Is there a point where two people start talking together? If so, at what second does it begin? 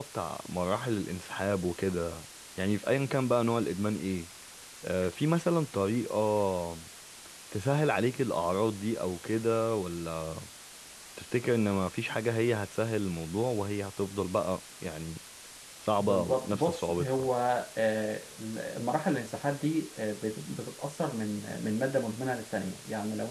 16.0 s

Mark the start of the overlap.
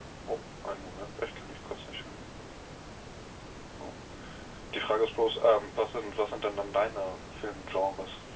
none

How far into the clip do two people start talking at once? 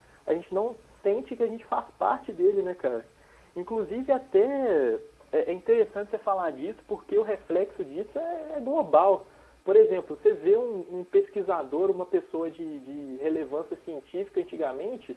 none

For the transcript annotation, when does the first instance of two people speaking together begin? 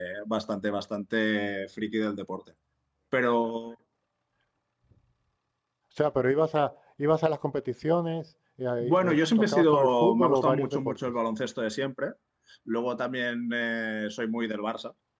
8.8 s

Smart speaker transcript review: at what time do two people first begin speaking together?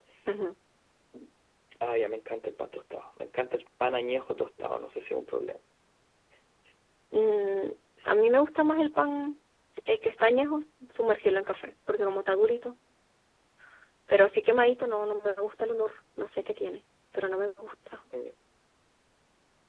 none

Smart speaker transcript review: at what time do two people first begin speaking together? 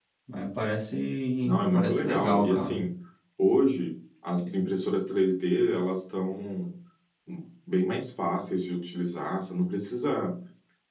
1.4 s

